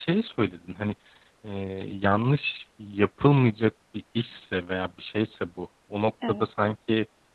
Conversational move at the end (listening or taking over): listening